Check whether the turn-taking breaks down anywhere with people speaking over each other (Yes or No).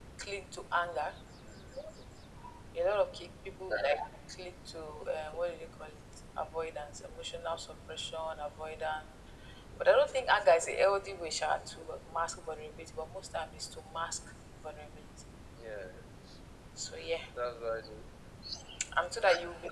No